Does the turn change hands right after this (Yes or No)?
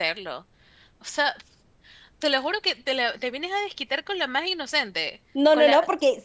Yes